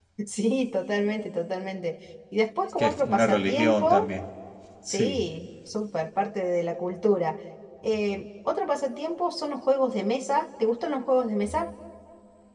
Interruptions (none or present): present